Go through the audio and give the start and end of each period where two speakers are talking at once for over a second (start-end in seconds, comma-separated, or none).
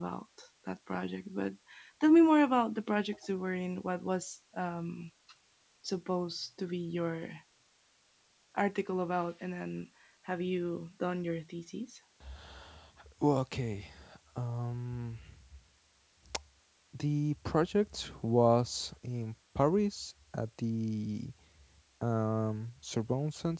none